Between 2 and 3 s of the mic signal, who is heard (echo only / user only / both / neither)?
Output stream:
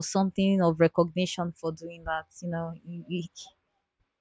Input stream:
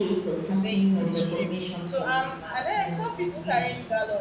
both